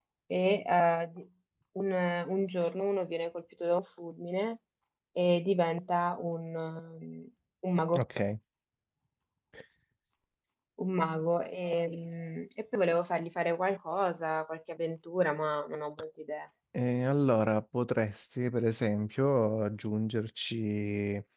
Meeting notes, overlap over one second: none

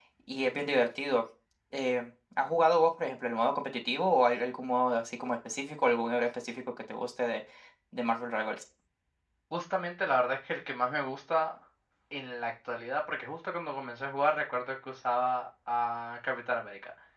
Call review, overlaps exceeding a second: none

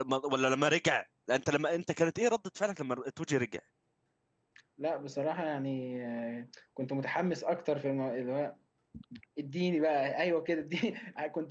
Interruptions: none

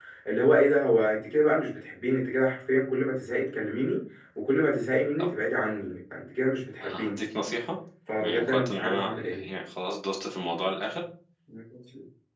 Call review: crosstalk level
present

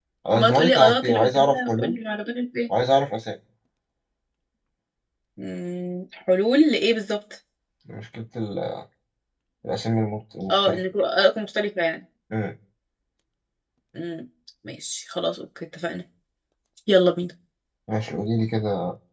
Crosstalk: present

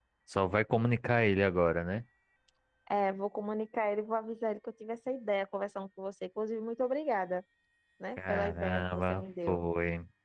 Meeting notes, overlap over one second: present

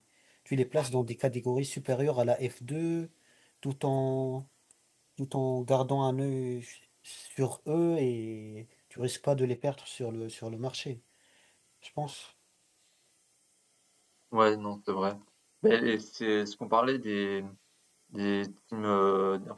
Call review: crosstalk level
none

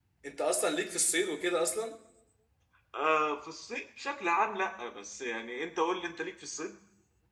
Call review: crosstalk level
none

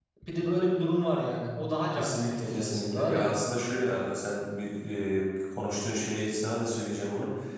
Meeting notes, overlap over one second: present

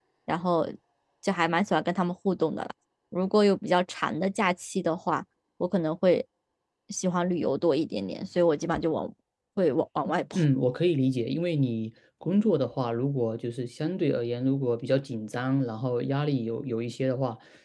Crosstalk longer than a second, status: none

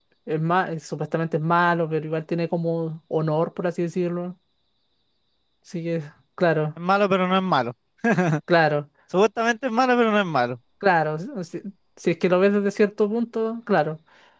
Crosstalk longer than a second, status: none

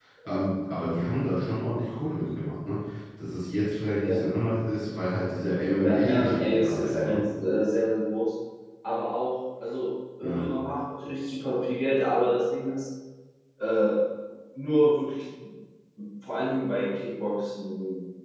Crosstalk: present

